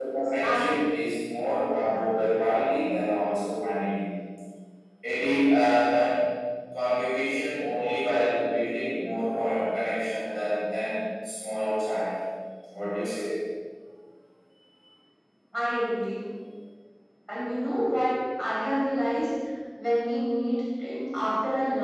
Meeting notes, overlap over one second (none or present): none